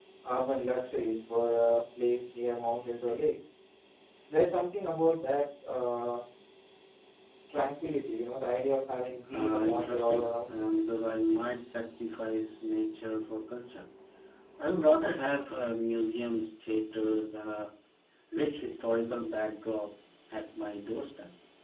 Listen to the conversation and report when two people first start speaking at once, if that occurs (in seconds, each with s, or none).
9.3 s